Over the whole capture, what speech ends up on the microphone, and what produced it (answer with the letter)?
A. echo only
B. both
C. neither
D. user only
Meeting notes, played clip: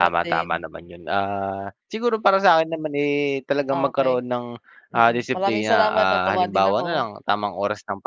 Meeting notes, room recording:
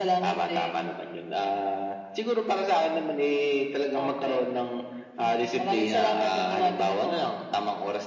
A